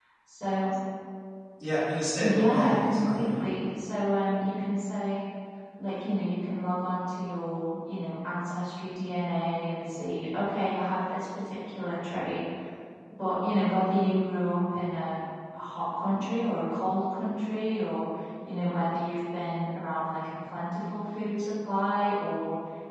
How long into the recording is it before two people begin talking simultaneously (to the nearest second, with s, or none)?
2 s